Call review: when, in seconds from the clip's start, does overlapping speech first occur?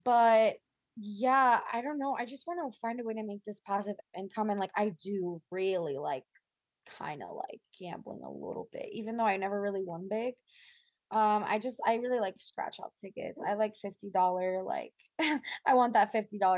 none

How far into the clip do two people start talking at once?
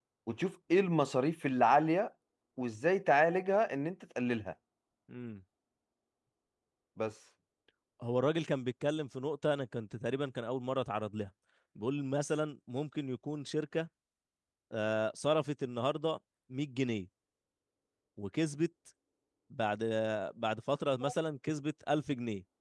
none

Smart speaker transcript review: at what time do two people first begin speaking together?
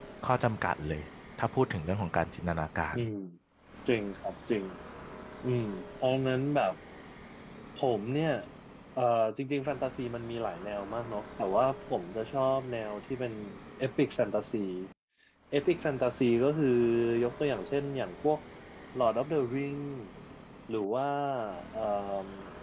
none

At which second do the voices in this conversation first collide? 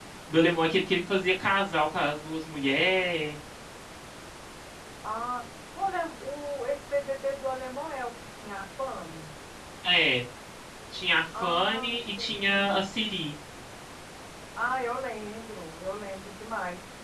11 s

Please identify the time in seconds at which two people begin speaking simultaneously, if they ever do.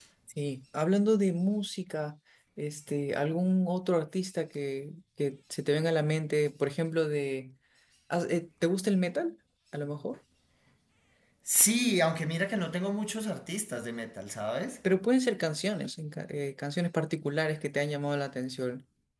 none

